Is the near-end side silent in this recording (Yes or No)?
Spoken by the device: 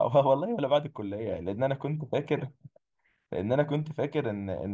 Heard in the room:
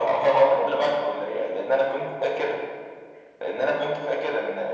Yes